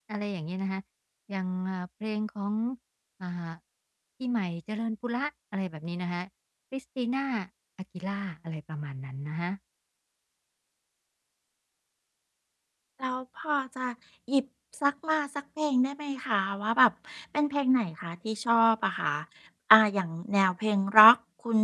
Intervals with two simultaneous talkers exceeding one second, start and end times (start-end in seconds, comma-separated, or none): none